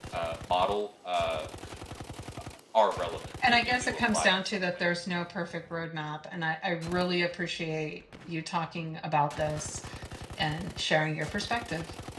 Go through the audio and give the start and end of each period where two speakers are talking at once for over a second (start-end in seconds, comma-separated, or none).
3.5-4.8